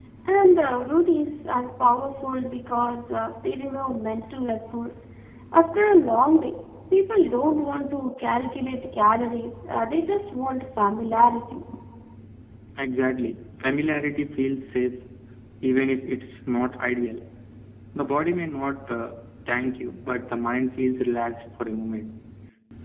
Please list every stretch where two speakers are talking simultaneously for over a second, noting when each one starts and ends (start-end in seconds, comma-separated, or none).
none